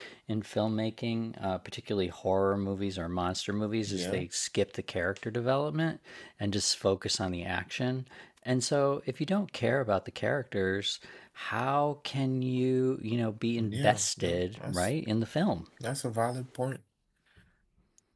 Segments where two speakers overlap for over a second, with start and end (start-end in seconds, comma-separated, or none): 13.6-14.9